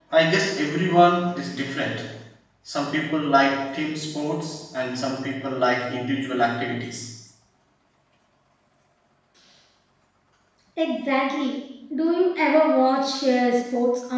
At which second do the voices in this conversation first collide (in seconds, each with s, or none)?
none